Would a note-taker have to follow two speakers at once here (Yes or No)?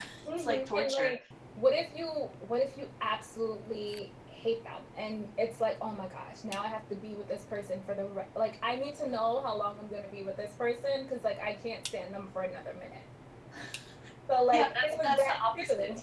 Yes